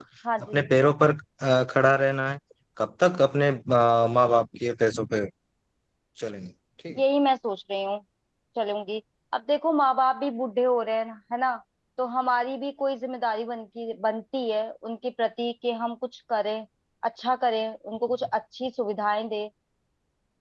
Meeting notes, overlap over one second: none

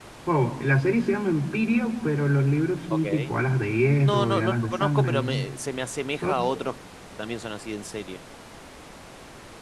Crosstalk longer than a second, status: present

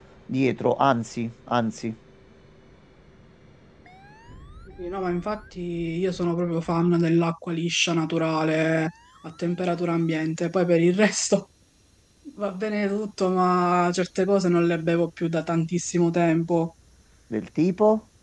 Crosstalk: none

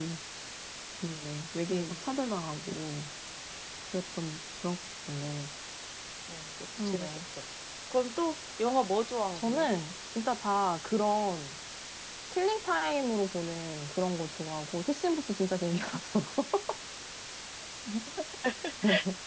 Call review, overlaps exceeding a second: none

